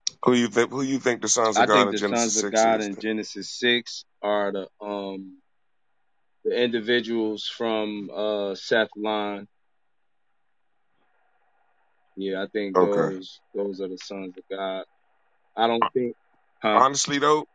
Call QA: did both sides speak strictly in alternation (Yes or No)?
No